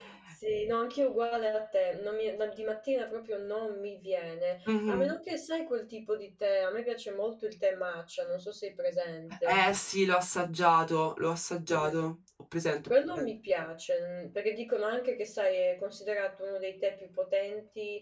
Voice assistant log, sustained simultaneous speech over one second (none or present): none